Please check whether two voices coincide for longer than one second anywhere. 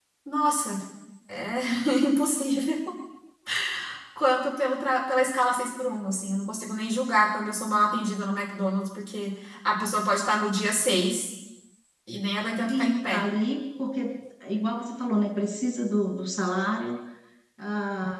No

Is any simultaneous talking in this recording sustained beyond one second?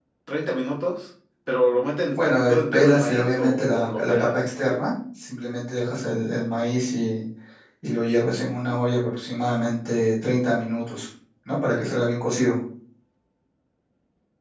Yes, from 2.1 s

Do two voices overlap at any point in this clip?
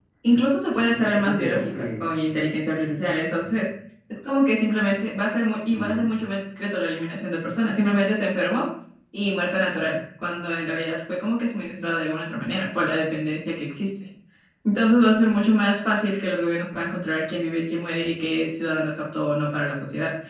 Yes, from 0.7 s

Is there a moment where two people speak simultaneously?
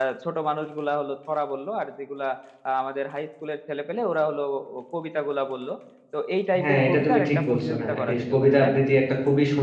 Yes, from 6.6 s

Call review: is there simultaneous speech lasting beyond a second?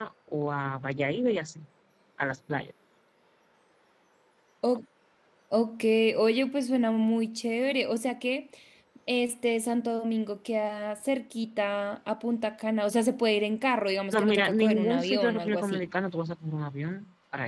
Yes, from 14.1 s

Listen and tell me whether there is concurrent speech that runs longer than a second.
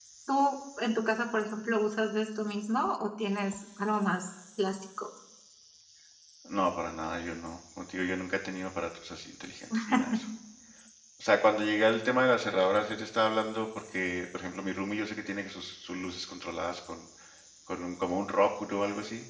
No

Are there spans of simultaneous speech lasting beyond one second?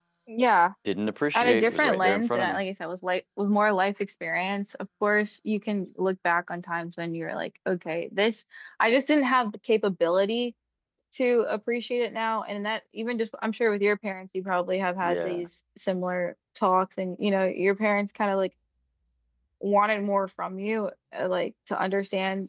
Yes, from 1.3 s

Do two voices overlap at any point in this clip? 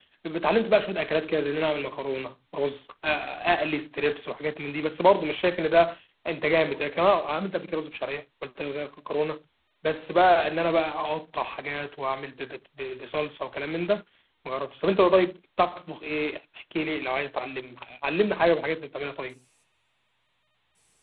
No

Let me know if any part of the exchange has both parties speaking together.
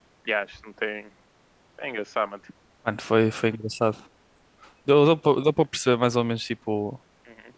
No

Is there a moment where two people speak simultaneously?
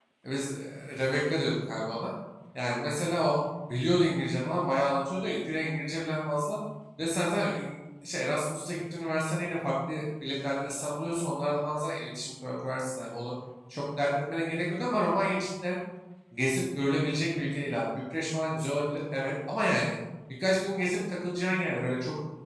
No

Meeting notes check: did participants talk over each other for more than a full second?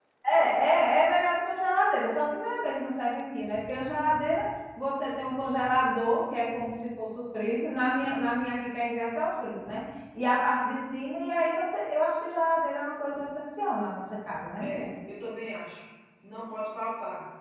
No

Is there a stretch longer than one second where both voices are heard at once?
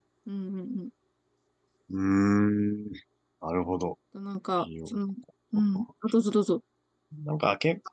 No

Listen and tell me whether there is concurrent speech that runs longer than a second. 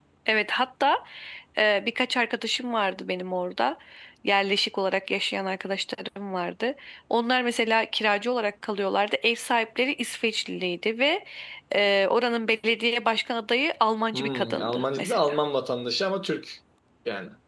Yes, from 14.1 s

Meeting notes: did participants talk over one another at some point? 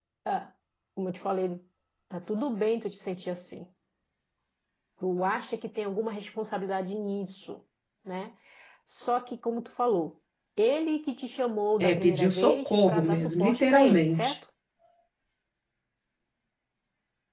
Yes, from 11.8 s

